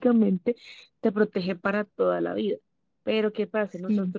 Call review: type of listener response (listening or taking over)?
listening